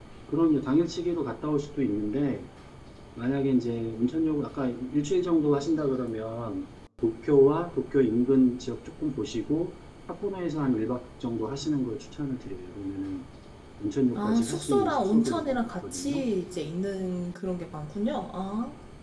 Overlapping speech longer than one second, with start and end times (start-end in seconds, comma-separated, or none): 14.2-16.3